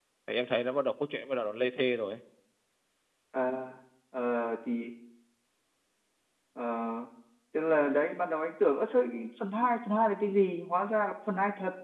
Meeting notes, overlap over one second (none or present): none